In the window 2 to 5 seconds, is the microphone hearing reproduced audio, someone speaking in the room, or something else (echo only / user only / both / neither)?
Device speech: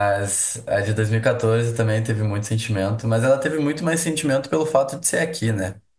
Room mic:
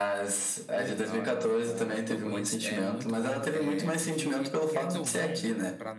both